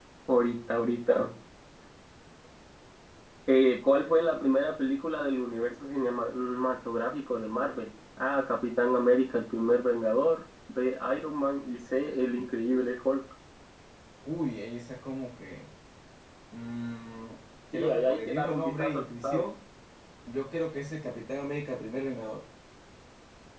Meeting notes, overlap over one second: present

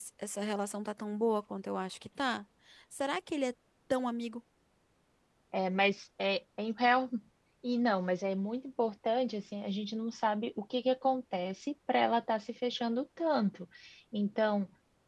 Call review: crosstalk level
none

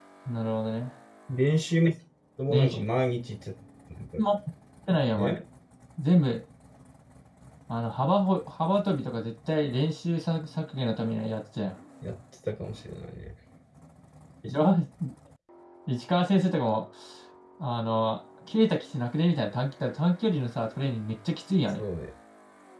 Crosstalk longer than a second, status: none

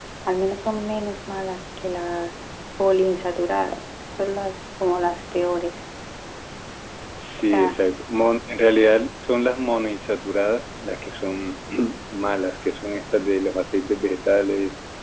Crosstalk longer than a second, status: none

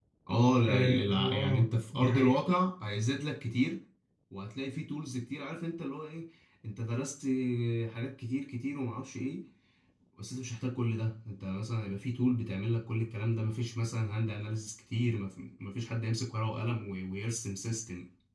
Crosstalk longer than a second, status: present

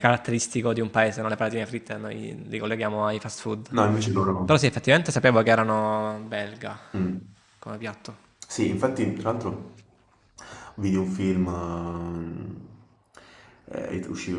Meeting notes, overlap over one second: none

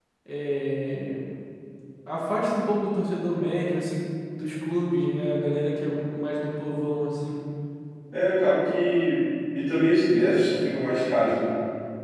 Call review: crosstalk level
none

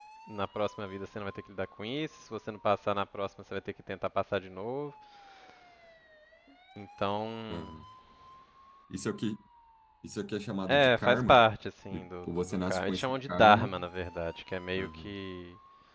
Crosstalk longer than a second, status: present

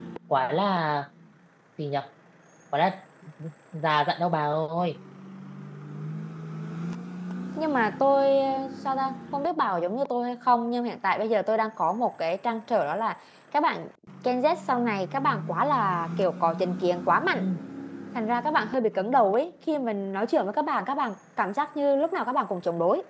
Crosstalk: none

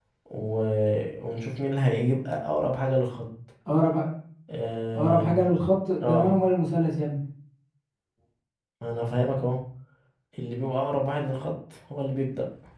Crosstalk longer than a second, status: none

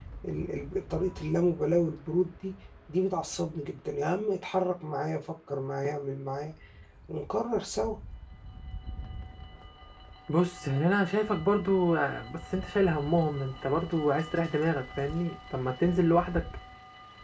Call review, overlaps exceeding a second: none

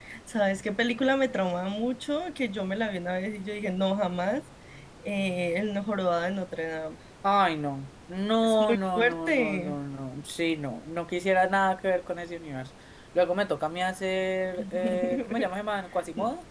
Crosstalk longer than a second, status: present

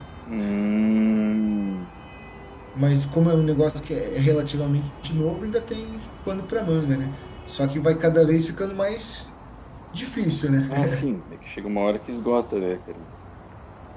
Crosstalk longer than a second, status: none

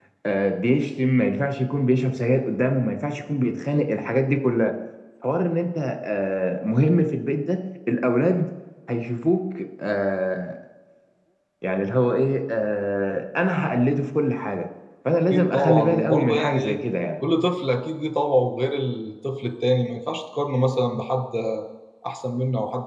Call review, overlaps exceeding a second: present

